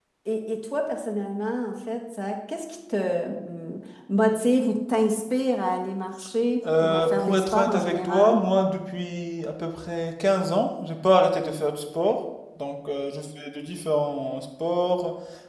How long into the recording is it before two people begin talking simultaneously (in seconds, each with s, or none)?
6.6 s